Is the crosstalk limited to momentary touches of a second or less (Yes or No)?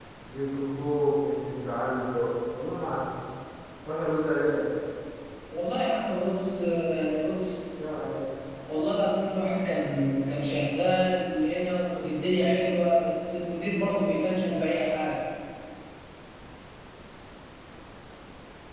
Yes